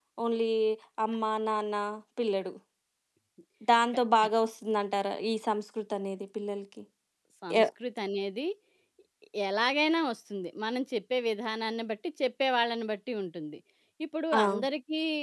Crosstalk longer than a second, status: none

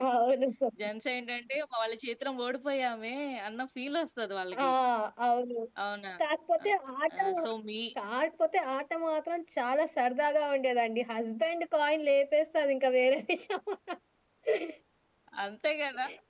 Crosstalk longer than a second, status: none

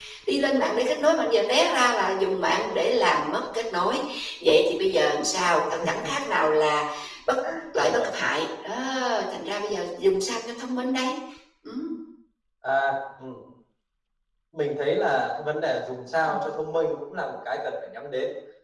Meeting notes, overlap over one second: none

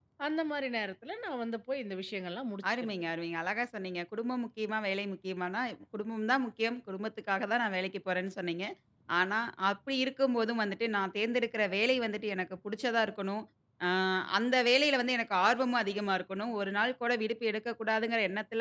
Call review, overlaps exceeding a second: none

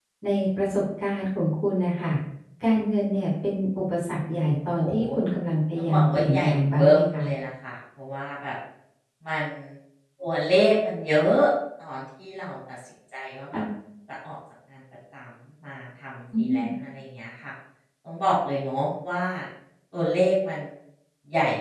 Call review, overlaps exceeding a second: present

